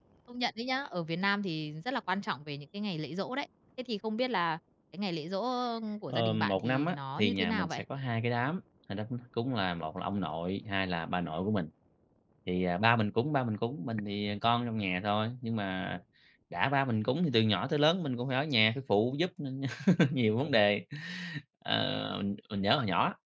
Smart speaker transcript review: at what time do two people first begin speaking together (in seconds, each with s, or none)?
6.1 s